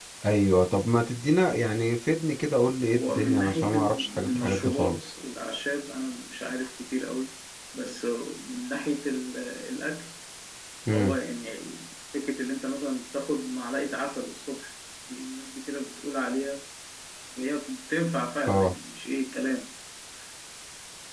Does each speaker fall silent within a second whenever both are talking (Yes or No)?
No